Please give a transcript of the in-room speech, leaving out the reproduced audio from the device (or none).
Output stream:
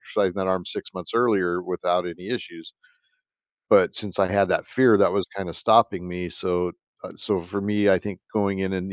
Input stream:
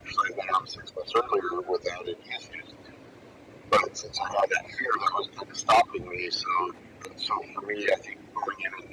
none